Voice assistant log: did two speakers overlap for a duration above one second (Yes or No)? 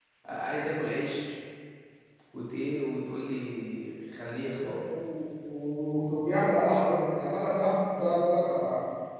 No